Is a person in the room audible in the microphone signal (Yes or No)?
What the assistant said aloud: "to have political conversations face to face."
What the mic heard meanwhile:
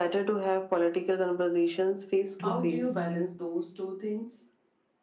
Yes